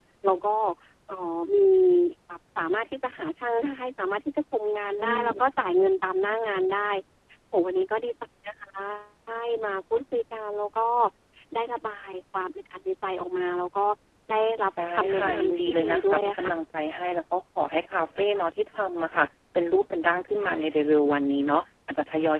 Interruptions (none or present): present